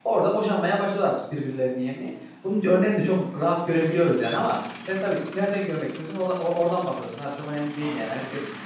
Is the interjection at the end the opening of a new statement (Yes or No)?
No